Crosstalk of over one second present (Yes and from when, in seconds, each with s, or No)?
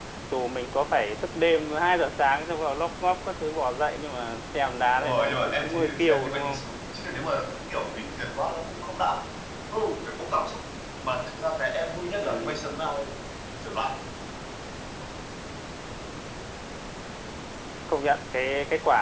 Yes, from 5.0 s